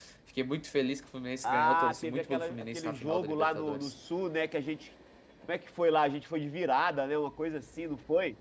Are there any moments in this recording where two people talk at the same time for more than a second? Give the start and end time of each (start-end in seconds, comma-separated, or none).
1.4-3.9